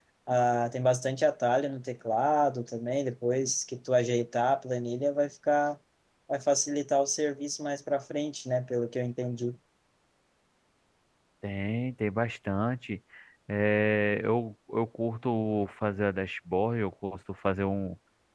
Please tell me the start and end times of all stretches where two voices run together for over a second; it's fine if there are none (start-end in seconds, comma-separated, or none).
none